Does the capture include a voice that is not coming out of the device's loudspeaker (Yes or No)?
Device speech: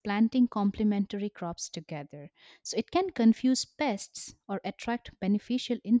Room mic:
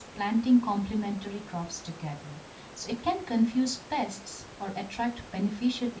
No